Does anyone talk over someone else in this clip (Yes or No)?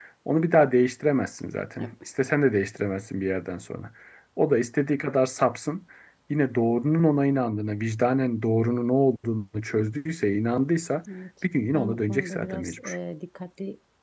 Yes